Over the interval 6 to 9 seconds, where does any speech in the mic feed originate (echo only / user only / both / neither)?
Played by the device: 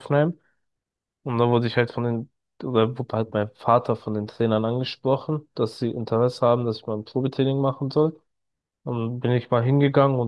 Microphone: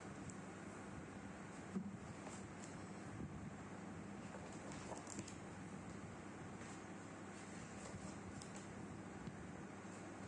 neither